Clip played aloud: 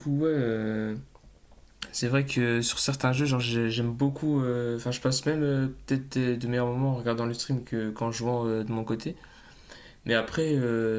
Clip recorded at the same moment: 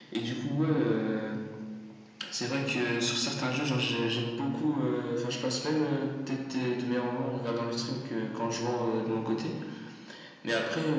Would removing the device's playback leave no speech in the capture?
Yes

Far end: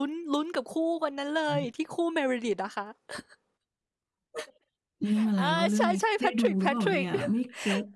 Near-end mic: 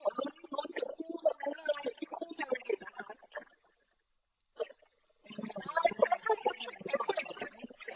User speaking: No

